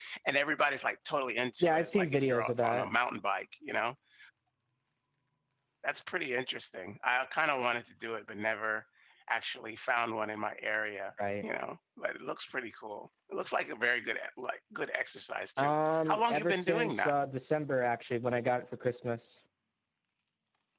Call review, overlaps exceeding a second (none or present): present